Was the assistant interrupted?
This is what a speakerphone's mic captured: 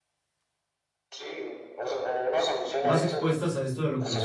Yes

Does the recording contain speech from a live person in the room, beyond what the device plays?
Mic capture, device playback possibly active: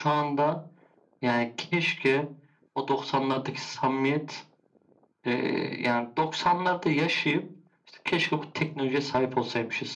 No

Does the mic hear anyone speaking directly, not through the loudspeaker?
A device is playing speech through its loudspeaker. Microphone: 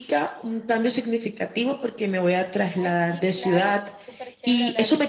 Yes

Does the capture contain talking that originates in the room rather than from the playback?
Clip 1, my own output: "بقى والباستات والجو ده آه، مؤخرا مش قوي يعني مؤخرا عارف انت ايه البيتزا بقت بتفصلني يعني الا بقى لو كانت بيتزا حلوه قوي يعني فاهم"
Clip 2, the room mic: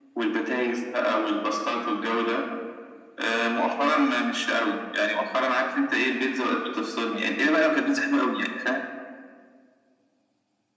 No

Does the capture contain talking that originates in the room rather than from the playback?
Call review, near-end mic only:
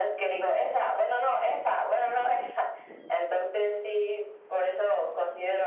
No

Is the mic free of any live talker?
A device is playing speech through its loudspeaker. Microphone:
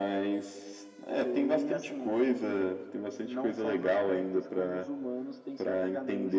Yes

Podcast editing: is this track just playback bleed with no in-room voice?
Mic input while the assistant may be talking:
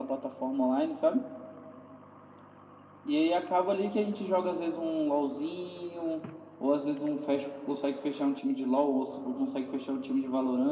Yes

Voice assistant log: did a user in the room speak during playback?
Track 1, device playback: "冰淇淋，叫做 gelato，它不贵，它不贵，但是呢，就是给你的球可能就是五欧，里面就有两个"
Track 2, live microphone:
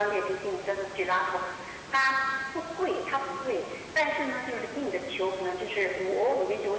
No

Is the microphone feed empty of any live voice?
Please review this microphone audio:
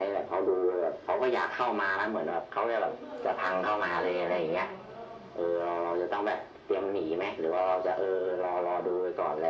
No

